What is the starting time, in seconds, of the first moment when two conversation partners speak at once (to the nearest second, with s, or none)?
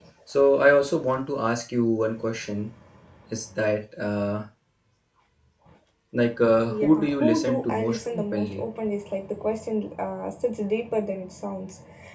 7 s